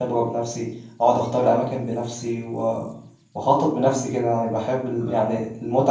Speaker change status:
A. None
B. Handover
A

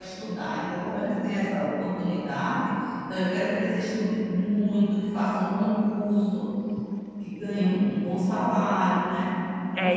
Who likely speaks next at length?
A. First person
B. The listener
B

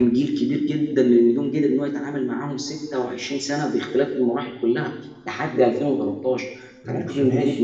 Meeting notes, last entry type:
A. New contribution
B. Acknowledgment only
A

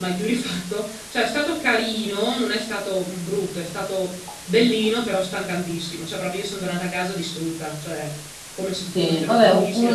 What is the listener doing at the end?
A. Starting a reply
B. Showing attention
A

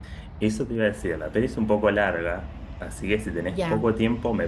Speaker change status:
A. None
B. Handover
A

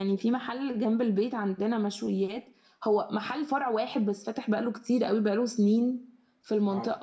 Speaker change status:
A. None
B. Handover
A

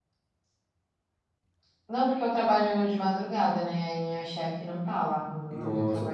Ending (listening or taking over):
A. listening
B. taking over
B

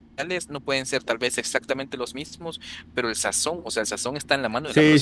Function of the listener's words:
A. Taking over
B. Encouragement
A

